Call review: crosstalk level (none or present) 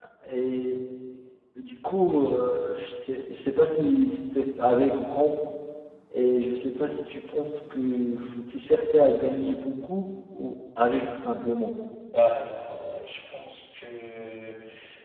none